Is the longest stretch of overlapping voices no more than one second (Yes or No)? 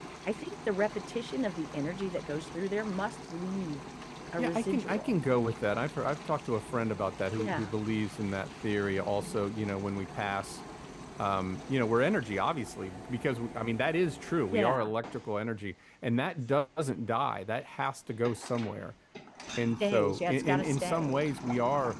No